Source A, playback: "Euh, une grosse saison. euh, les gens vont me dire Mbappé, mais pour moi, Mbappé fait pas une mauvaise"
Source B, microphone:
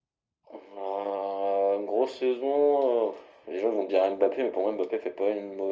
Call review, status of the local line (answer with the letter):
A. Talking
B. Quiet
B